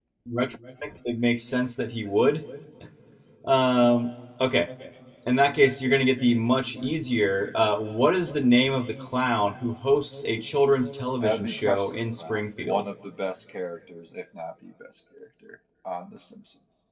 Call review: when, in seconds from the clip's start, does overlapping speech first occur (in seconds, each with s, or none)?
11.2 s